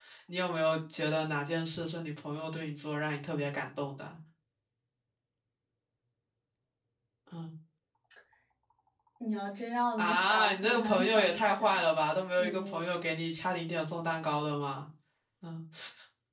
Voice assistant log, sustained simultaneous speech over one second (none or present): present